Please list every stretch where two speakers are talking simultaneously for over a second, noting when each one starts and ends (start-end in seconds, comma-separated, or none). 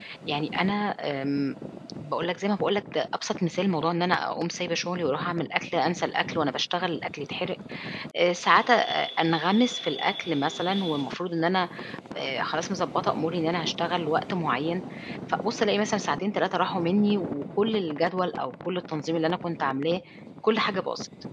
none